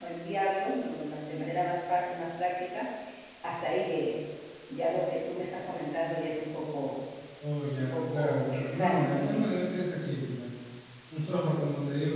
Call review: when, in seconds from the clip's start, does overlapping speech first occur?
7.8 s

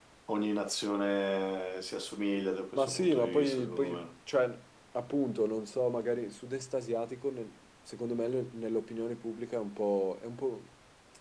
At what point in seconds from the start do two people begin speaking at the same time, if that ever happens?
2.8 s

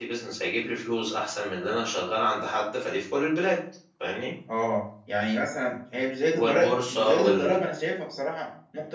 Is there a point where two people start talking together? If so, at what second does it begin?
6.3 s

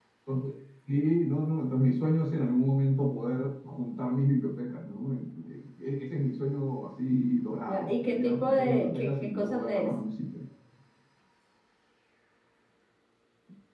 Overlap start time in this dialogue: 7.7 s

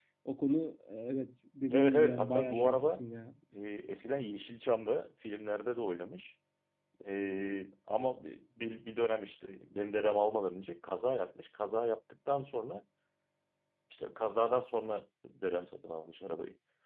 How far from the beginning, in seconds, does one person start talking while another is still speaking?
1.7 s

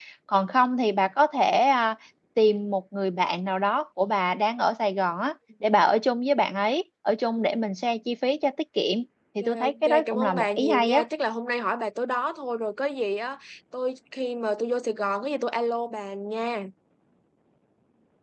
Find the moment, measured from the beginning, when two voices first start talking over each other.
9.4 s

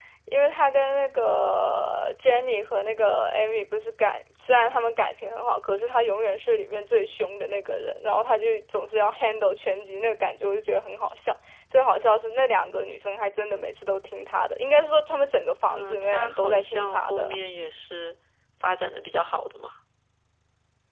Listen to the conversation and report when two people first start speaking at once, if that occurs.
15.6 s

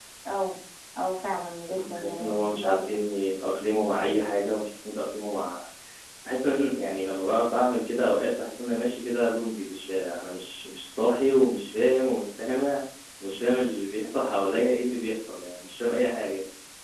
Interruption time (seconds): 1.8 s

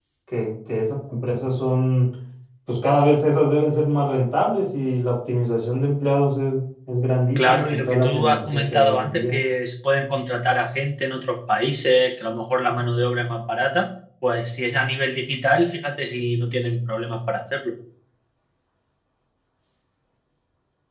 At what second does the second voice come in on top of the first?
7.4 s

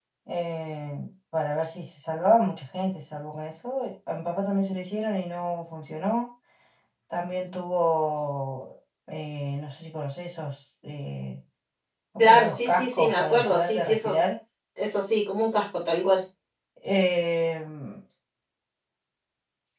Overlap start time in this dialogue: 12.2 s

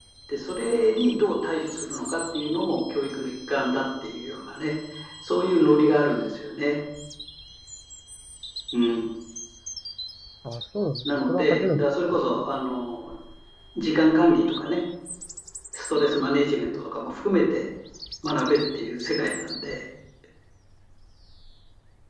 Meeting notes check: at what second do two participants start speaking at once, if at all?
11.1 s

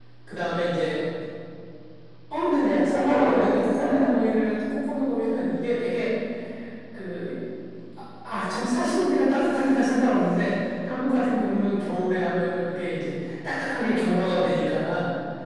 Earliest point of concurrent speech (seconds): 2.6 s

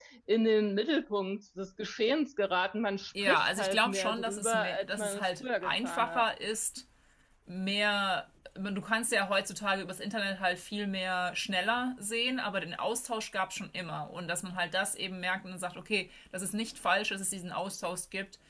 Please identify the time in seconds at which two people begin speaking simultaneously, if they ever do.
3.2 s

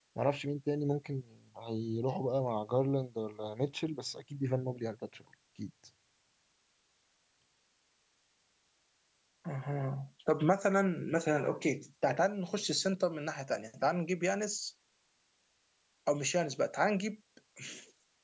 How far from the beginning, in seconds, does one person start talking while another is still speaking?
none

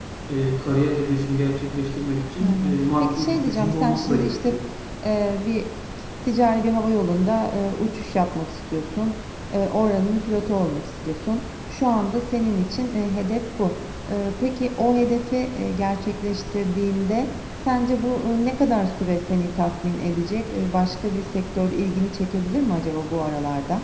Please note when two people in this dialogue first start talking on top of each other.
2.4 s

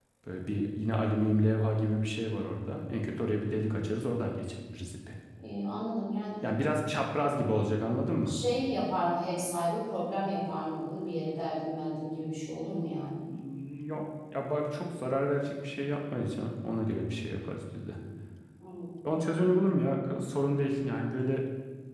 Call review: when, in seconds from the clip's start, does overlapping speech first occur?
none

